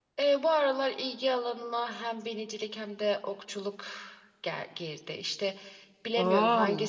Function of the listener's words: listening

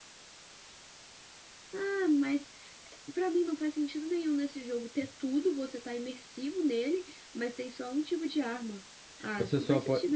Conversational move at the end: taking over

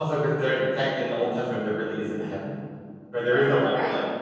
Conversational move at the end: taking over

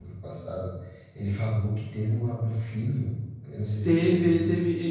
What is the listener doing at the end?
taking over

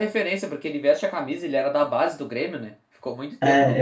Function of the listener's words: taking over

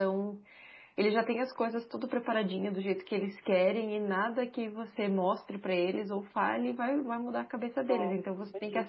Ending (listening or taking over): listening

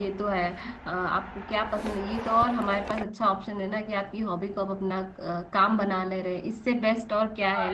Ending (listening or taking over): taking over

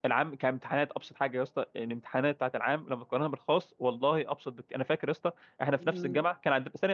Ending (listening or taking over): listening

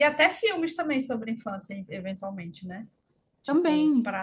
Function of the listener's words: listening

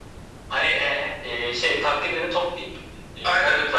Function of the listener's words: taking over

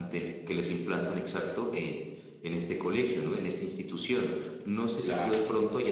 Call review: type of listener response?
listening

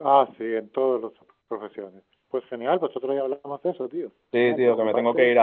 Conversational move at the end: taking over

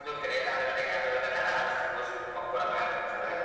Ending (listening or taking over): taking over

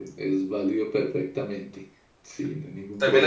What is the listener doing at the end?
taking over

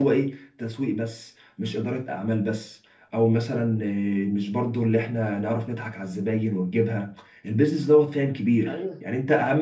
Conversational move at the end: listening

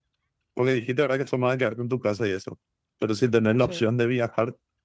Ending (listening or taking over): listening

